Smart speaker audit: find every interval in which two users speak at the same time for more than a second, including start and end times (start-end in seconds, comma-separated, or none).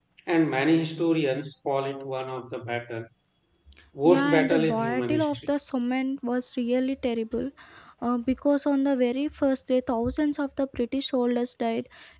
4.0-5.3